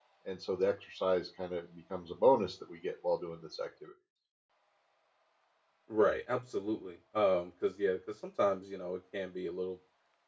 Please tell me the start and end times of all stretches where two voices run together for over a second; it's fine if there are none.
none

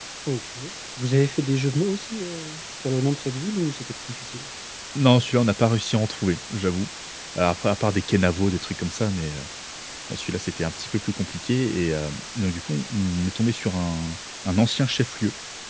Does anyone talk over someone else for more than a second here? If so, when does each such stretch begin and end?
none

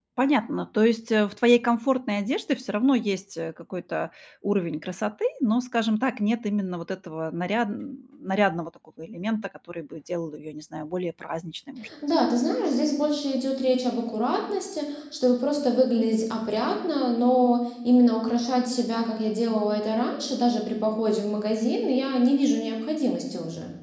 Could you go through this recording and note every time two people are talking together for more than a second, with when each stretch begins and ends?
none

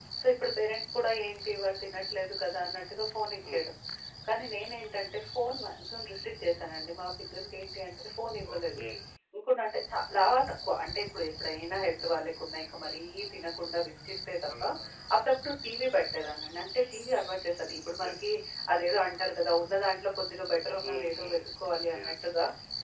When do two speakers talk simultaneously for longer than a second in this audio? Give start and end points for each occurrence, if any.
20.8-22.1

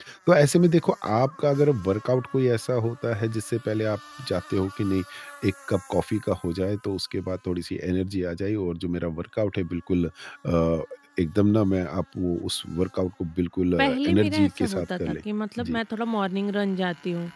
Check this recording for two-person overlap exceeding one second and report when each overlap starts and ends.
13.8-15.2

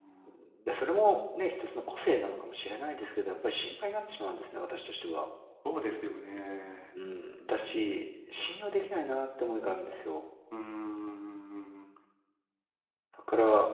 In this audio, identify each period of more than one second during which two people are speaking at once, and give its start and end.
none

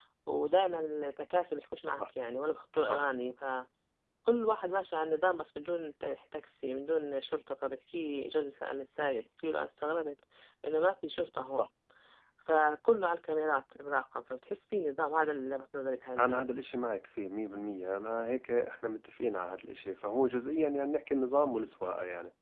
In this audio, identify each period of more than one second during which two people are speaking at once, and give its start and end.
none

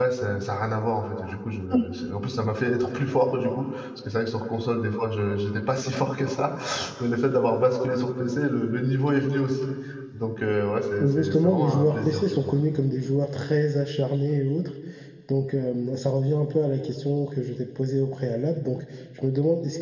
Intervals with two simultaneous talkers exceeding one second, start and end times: 11.0-12.6

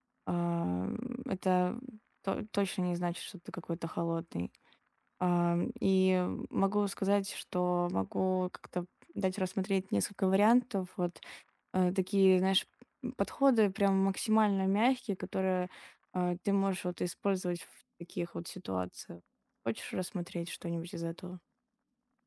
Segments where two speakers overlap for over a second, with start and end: none

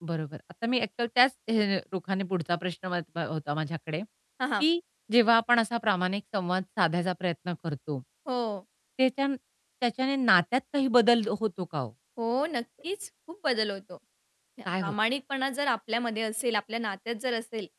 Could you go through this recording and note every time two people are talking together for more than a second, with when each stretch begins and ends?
none

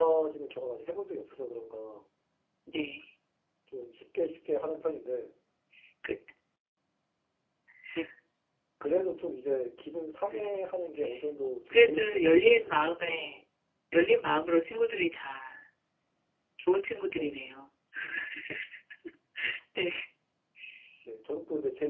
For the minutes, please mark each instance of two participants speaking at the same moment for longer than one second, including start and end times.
11.7-13.4

